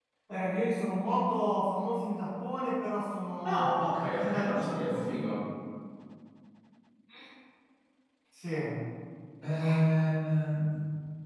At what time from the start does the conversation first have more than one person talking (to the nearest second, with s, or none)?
3 s